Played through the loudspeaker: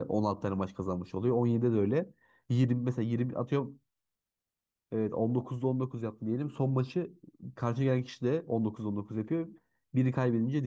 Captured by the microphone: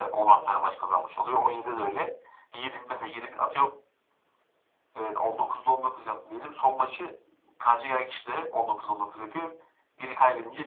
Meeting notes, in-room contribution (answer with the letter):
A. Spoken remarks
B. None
B